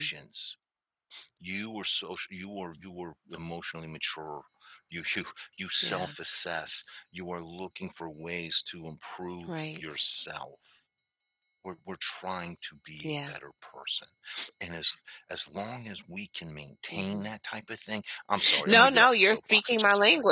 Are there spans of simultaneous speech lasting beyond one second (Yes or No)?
Yes